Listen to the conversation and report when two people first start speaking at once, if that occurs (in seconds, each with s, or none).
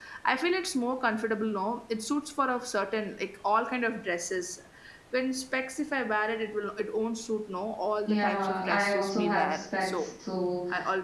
8.1 s